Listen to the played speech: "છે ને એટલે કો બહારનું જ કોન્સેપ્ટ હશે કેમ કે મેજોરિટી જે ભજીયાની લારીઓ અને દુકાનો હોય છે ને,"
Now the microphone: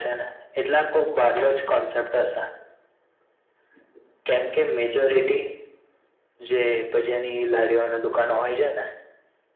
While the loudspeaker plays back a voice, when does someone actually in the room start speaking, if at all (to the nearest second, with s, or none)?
none